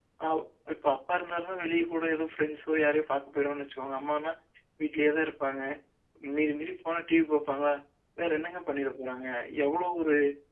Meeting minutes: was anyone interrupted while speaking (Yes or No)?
No